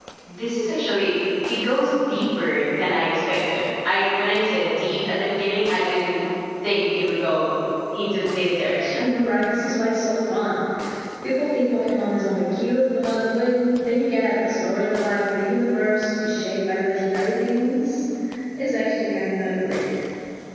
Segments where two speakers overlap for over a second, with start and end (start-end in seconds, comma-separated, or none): none